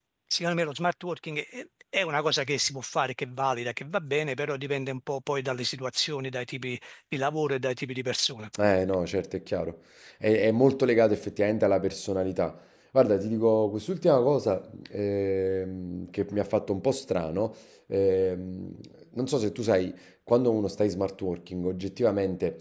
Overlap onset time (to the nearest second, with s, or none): none